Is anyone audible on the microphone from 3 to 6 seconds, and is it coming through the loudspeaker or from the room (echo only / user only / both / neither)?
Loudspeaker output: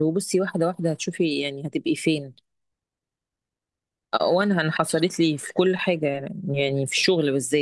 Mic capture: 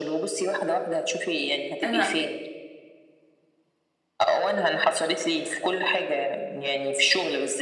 echo only